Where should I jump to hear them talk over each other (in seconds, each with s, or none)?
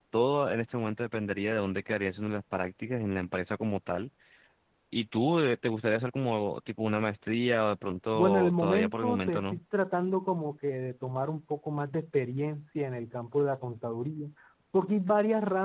8.1 s